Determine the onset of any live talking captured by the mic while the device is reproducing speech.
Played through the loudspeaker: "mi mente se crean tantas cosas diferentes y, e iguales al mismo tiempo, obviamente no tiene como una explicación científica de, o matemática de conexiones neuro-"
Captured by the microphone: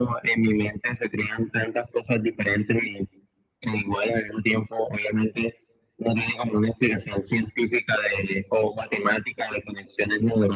none

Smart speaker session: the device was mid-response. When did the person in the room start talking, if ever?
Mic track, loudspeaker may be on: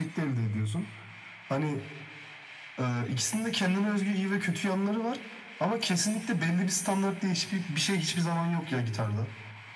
none

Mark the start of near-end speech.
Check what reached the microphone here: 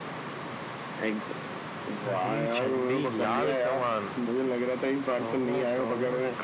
none

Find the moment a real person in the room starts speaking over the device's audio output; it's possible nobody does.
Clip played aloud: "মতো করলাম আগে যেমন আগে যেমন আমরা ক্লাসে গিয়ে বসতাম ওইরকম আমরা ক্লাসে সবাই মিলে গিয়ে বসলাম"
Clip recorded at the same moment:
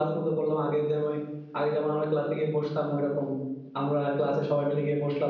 none

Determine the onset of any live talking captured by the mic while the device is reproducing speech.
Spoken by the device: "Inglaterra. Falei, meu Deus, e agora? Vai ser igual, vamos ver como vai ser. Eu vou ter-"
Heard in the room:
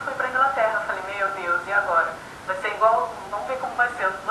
none

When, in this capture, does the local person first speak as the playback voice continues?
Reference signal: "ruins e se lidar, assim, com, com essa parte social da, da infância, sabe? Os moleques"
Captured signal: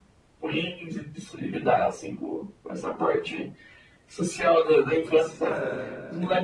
5 s

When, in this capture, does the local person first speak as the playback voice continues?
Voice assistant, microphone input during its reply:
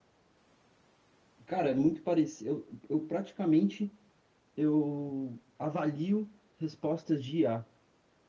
1 s

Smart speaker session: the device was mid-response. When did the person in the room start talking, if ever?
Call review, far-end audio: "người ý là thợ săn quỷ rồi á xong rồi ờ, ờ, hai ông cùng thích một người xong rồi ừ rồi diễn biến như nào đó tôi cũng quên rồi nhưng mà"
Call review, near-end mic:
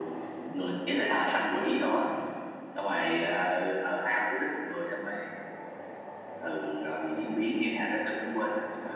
none

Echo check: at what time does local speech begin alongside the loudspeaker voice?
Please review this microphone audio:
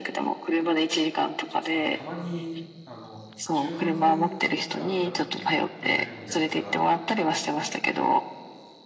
2 s

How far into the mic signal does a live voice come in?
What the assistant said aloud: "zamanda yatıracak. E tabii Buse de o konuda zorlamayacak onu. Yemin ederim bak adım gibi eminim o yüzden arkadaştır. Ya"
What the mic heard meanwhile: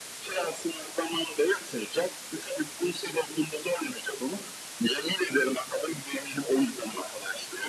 none

